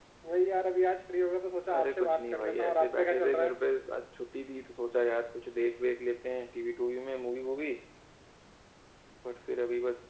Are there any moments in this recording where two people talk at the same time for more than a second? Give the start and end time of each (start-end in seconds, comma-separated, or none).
1.8-3.6